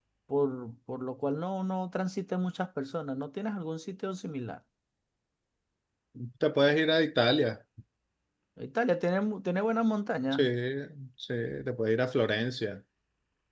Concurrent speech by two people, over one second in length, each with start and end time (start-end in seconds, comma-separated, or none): none